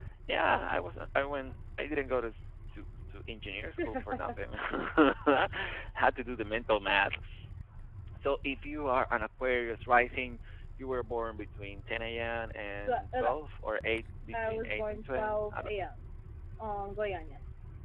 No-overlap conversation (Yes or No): No